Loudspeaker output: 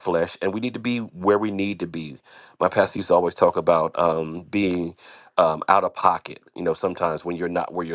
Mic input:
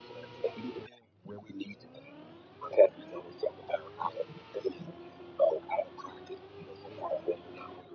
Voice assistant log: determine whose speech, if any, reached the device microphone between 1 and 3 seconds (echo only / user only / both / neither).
echo only